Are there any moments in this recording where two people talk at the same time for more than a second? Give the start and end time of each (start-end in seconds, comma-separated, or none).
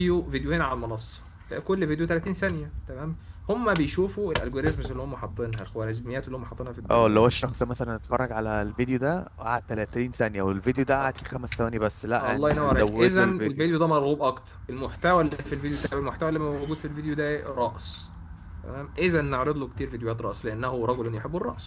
12.2-13.6